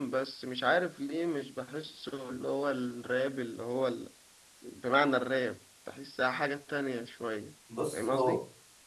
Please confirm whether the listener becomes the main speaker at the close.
Yes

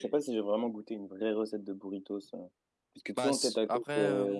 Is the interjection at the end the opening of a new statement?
Yes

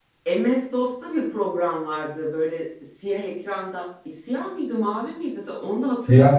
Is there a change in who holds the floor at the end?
No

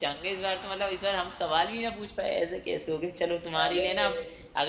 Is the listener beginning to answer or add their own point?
No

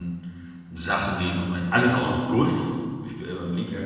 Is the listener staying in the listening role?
Yes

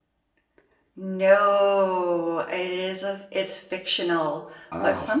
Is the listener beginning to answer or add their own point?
No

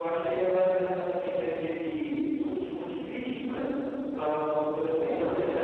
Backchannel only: Yes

